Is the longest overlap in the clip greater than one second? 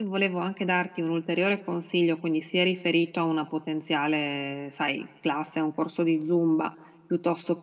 No

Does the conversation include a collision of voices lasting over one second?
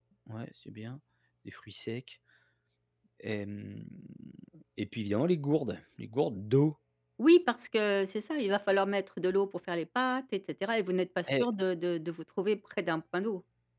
No

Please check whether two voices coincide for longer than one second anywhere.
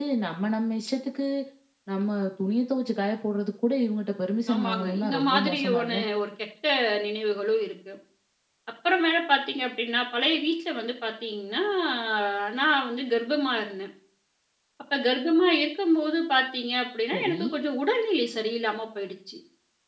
Yes, from 4.5 s

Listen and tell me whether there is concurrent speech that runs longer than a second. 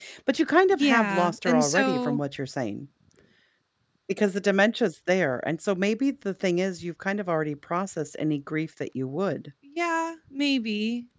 Yes, from 0.7 s

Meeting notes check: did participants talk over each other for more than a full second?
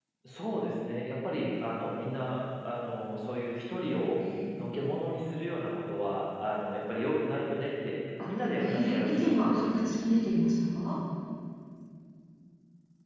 Yes, from 8.2 s

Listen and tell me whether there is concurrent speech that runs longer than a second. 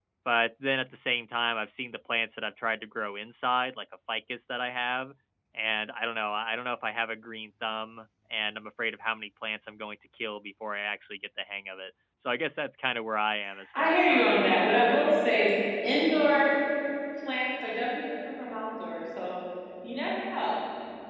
Yes, from 13.7 s

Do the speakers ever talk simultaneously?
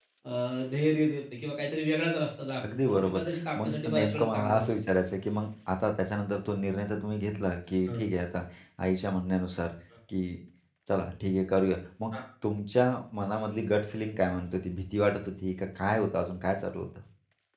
Yes, from 2.9 s

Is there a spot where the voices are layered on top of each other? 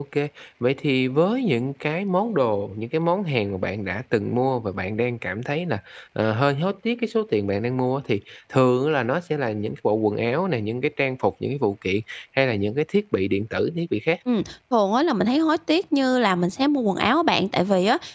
No

